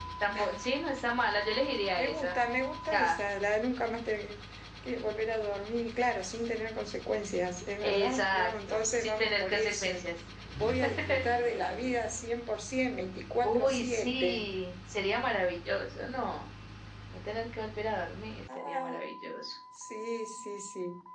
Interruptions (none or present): present